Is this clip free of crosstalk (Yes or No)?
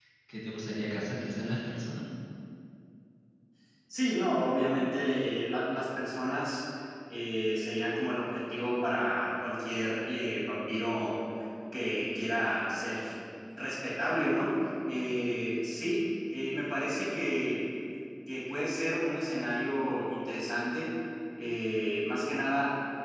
Yes